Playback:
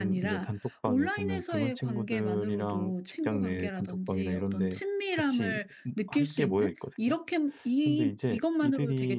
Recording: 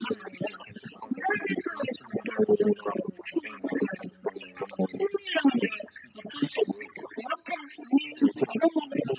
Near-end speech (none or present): none